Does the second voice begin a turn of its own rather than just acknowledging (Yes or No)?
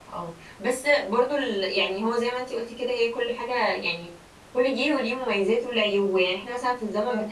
No